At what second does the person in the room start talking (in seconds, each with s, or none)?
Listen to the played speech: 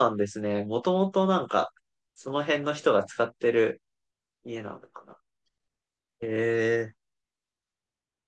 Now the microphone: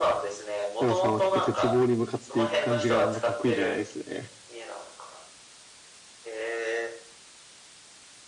0.8 s